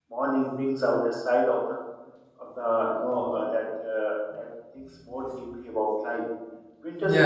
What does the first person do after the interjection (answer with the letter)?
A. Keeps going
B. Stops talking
B